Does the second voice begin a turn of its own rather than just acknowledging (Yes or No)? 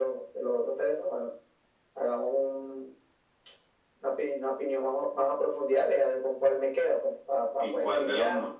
Yes